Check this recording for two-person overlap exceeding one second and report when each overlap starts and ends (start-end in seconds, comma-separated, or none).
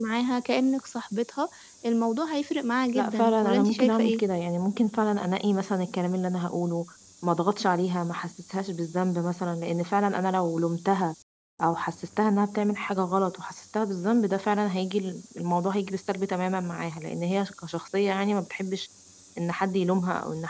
2.9-4.2